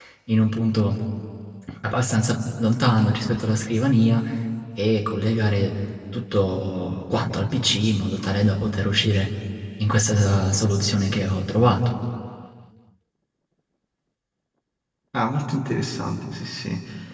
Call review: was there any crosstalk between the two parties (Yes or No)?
No